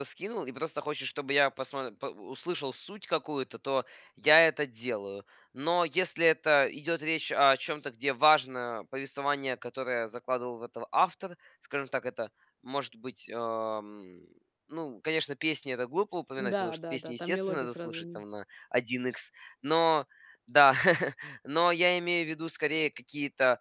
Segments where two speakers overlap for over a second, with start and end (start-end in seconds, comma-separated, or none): 16.4-18.2